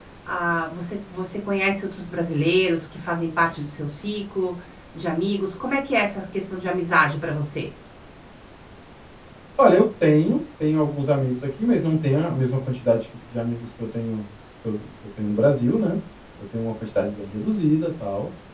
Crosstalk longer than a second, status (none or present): none